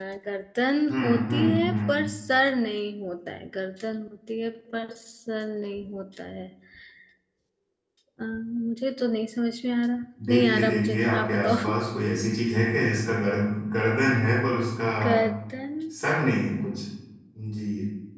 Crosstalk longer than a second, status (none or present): present